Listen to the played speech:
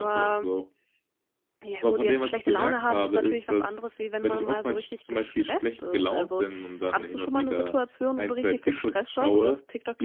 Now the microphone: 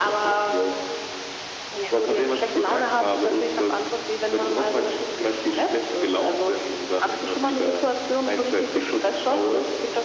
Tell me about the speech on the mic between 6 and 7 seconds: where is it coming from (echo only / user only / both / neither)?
echo only